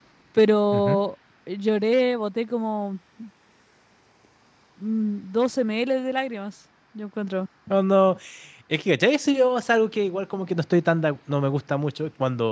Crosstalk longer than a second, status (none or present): none